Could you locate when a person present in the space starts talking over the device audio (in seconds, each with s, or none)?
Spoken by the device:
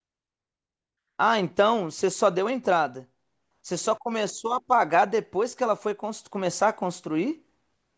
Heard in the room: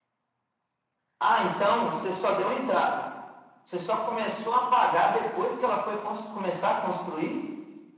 none